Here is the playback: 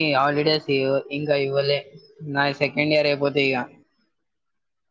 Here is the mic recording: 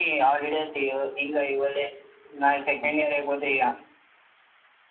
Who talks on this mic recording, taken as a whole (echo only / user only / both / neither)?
echo only